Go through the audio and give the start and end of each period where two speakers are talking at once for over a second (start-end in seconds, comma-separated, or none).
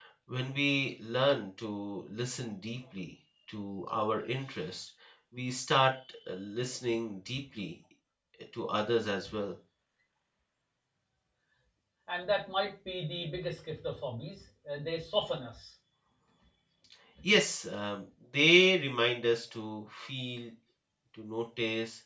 none